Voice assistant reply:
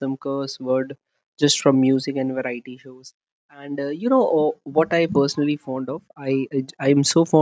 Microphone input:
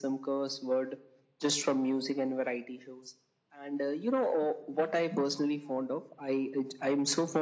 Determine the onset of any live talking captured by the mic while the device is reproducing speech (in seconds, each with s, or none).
none